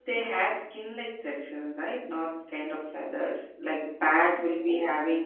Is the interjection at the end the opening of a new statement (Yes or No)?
No